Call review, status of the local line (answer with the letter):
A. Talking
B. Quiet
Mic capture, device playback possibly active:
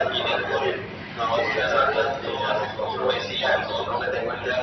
B